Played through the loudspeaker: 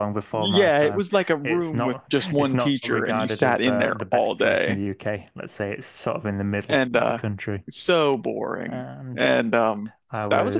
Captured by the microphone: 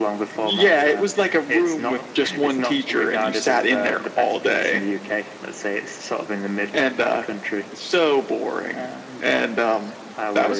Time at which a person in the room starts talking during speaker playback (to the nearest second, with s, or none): none